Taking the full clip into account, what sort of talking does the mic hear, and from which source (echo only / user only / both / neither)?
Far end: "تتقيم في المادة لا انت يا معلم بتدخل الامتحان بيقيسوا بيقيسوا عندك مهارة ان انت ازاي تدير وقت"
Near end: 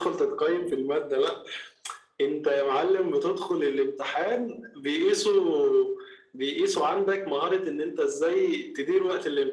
echo only